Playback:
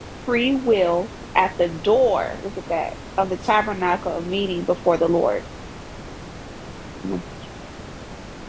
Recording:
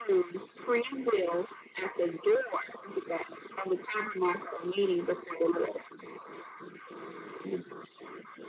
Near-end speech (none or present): none